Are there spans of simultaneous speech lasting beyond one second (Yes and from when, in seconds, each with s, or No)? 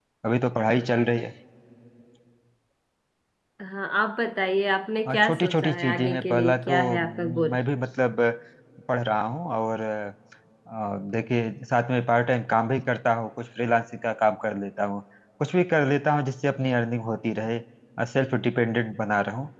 Yes, from 5.0 s